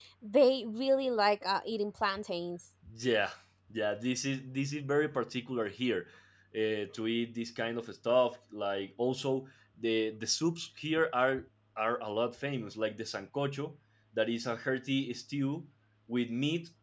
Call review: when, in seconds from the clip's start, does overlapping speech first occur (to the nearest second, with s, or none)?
none